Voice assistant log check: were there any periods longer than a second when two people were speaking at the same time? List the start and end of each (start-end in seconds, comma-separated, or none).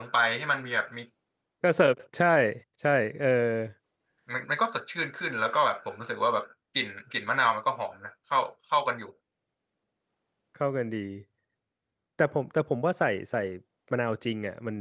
none